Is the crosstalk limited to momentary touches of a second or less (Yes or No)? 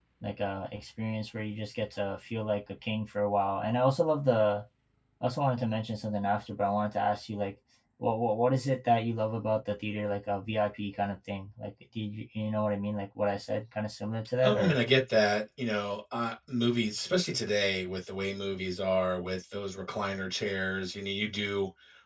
Yes